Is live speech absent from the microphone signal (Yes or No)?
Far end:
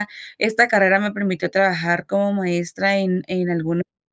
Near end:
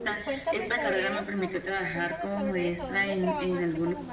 No